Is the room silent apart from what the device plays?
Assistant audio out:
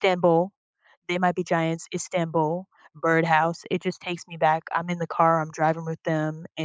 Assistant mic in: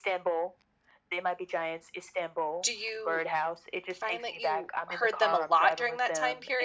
No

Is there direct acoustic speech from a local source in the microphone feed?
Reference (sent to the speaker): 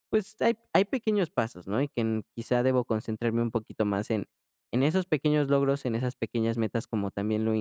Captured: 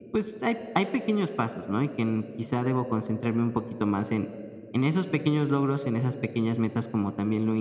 No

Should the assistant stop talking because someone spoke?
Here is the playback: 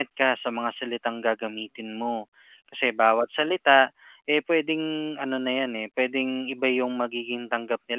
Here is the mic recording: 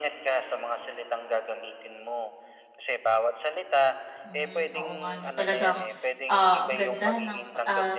Yes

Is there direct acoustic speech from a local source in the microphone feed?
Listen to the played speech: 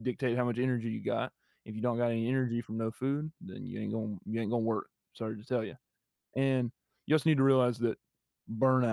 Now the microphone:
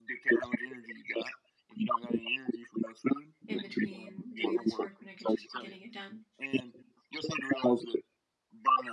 Yes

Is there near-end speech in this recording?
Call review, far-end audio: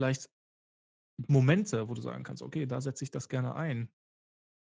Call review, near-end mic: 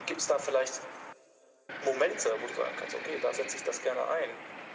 No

